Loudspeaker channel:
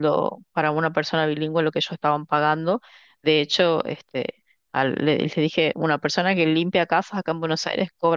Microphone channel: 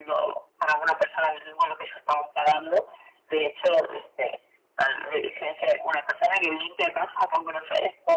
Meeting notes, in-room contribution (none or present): none